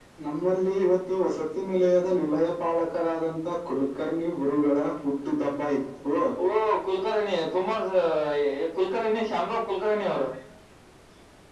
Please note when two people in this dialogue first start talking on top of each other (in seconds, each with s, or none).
none